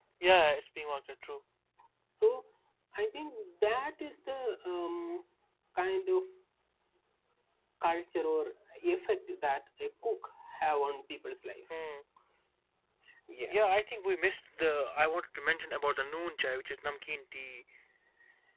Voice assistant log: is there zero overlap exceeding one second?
Yes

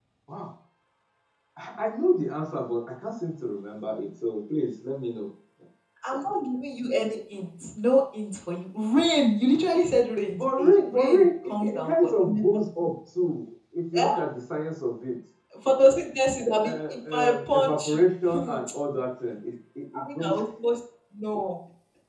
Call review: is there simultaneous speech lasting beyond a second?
Yes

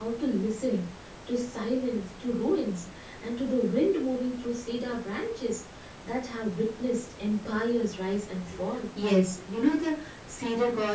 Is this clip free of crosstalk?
Yes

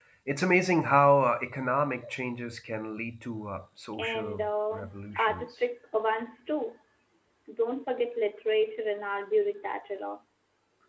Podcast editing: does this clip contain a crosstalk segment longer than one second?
Yes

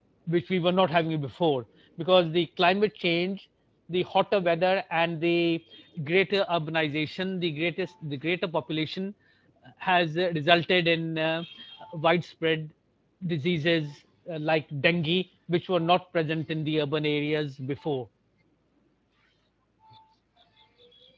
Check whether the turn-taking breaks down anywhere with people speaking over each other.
No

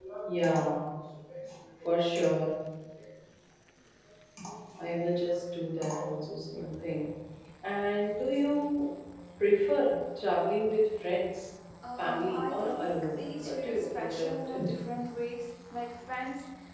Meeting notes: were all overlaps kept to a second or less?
No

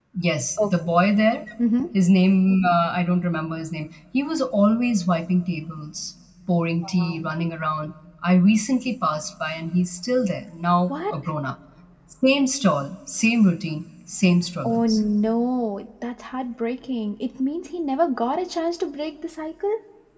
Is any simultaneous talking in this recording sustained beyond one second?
No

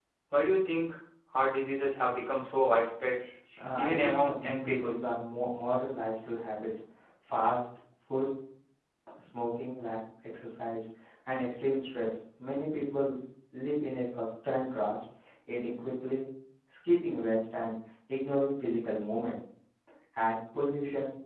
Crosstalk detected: Yes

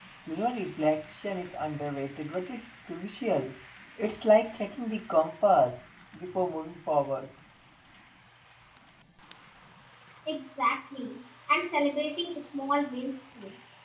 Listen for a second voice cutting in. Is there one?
No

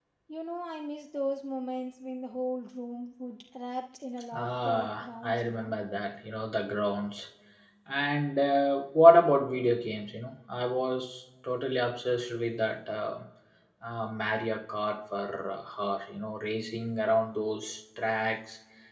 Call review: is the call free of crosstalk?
No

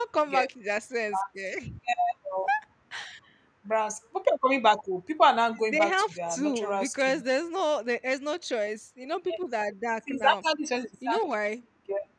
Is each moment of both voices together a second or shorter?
No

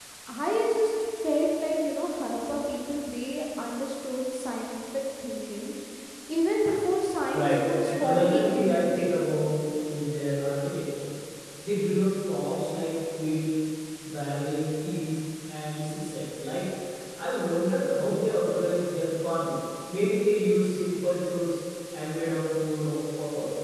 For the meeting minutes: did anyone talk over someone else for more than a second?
Yes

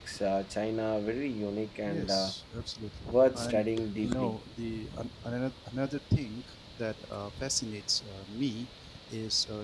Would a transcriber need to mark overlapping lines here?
Yes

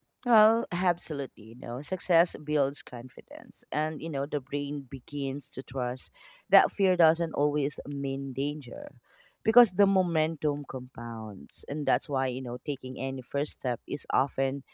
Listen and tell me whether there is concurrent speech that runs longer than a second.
No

